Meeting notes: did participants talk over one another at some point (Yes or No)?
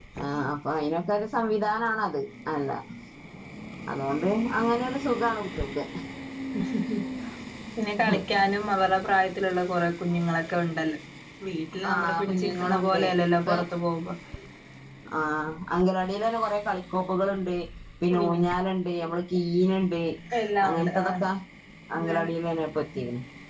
Yes